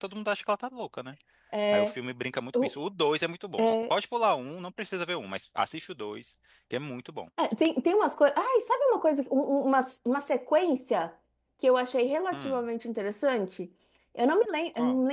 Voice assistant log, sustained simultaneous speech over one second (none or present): none